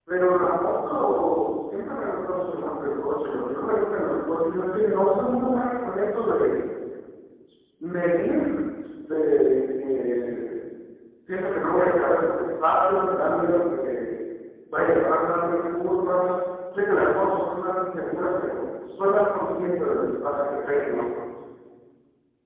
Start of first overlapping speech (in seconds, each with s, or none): none